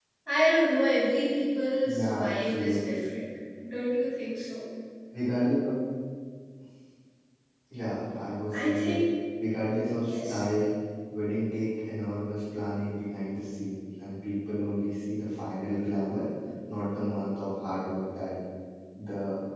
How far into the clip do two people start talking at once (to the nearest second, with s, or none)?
2 s